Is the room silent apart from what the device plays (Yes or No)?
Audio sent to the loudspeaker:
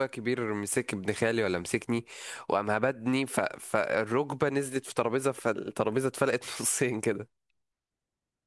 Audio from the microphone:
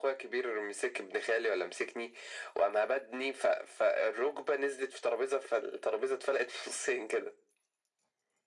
Yes